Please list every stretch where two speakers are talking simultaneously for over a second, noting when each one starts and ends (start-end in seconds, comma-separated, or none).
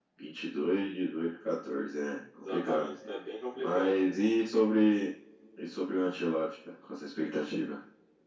none